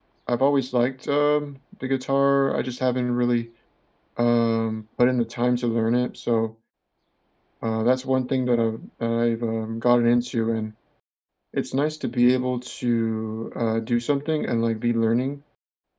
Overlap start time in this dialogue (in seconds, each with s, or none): none